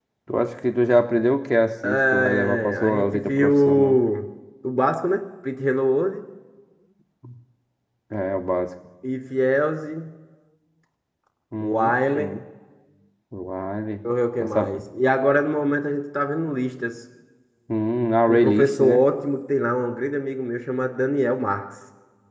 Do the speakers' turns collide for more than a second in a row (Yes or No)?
Yes